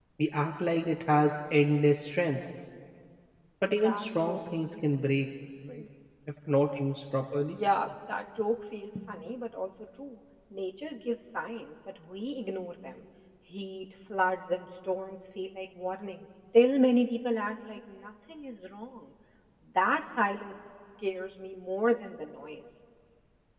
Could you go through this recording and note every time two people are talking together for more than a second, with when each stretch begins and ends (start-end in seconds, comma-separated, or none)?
3.7-4.9